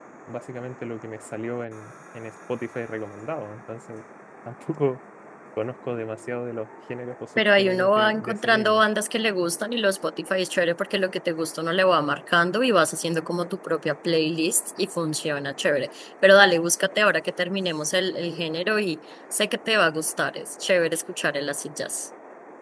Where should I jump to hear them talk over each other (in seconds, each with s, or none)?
7.4 s